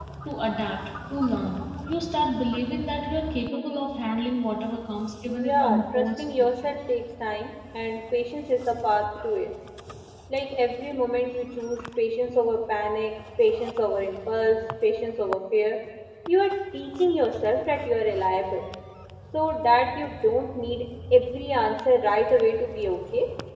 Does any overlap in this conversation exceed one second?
Yes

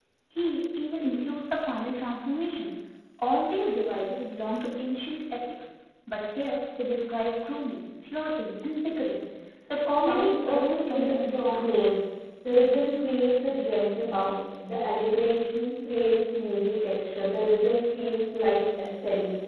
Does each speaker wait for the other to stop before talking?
No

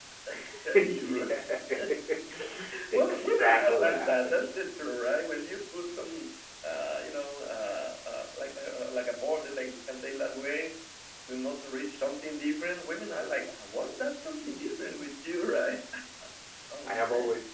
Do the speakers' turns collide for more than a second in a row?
Yes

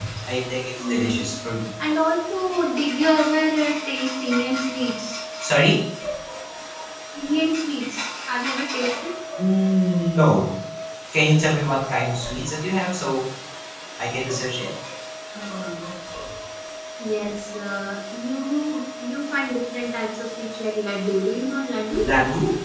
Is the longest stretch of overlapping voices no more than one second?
Yes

